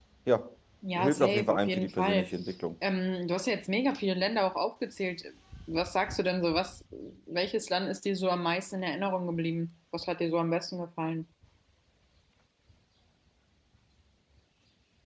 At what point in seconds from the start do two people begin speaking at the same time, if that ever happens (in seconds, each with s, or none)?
1.0 s